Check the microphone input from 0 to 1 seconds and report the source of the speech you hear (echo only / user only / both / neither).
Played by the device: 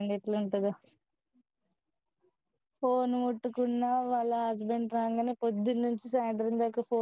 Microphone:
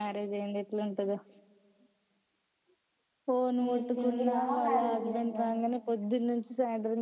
echo only